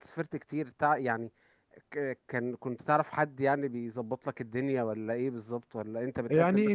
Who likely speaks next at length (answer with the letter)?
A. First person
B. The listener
B